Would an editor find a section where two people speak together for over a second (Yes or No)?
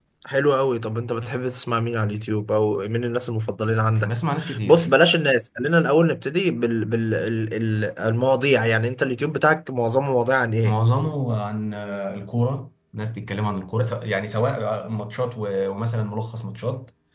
No